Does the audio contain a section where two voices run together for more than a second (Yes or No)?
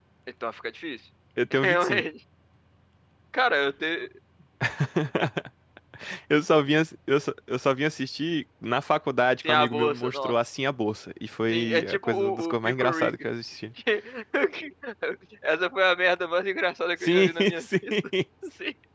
Yes